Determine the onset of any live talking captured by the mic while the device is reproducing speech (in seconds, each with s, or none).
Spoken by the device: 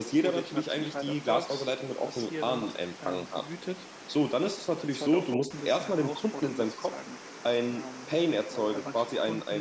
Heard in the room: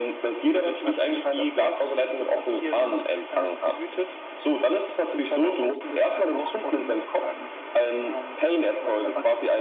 none